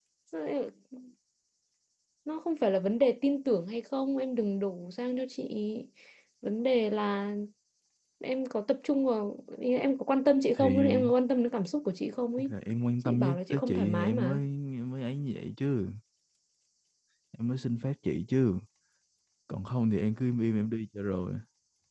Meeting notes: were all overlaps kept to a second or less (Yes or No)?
No